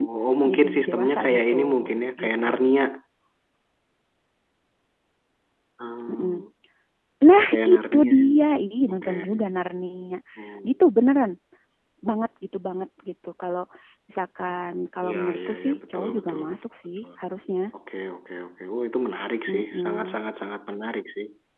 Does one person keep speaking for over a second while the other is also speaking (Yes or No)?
Yes